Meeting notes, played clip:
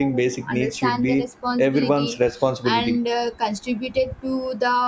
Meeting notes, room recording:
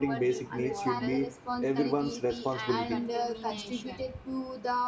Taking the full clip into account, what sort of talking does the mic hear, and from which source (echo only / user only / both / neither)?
both